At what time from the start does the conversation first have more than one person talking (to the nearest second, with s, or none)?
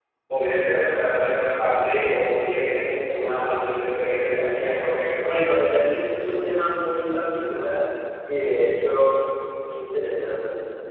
none